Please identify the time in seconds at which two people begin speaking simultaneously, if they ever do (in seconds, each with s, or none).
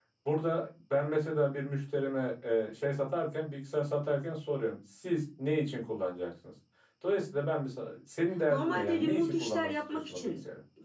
8.5 s